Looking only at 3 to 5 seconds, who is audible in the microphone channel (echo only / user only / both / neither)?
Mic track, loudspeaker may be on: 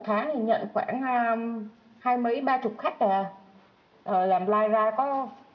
echo only